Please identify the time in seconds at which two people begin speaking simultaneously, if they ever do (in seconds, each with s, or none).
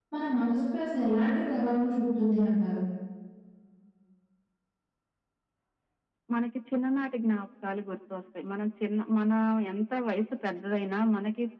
none